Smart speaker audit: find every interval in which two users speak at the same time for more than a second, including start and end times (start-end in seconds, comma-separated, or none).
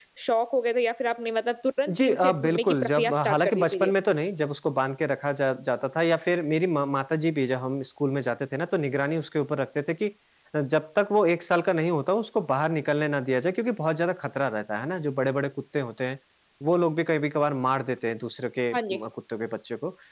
2.0-3.9